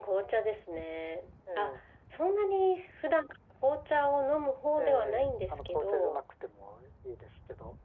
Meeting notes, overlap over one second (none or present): present